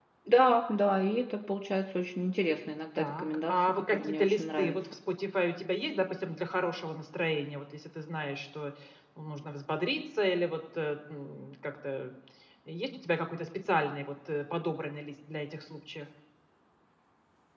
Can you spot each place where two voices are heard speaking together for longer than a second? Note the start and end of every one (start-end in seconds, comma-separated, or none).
3.0-4.8